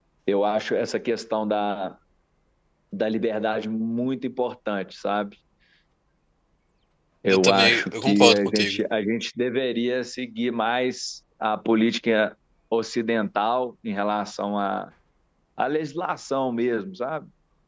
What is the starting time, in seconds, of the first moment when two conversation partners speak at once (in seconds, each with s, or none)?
7.3 s